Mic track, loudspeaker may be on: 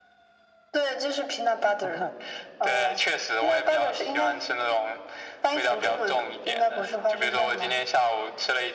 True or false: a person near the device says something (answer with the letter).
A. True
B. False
B